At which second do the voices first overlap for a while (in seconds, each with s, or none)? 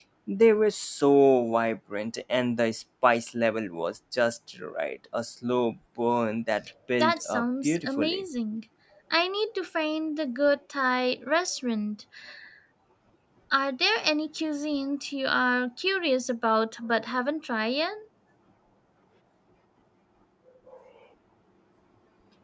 7.0 s